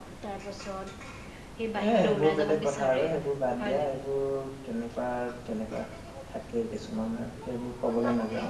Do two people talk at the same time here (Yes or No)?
Yes